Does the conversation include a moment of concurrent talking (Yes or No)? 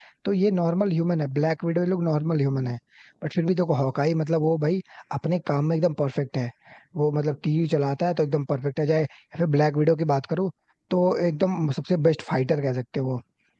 No